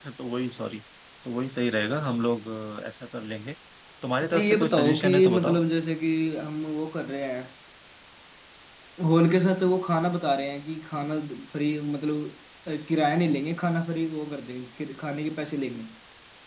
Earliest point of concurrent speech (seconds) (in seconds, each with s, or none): 4.3 s